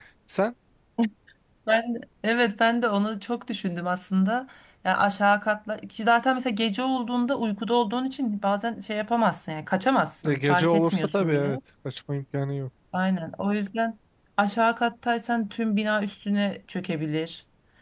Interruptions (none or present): present